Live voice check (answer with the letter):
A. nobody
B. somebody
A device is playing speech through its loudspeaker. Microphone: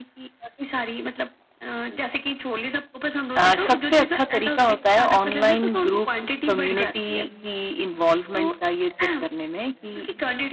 B